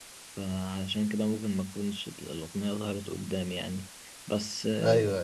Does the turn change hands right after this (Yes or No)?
No